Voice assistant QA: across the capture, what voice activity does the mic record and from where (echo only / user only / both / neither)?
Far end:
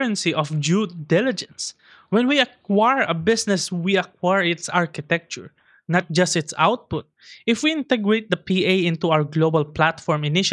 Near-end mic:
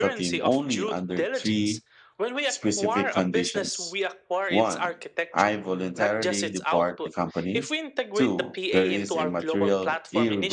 both